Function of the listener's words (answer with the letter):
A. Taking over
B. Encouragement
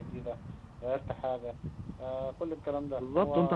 A